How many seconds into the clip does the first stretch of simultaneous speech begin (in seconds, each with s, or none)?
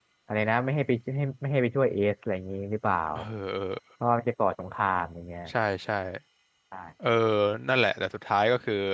none